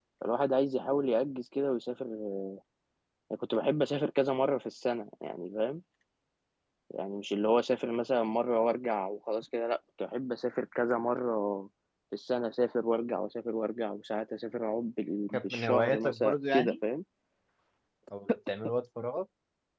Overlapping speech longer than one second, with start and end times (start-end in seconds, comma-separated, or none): 15.3-16.8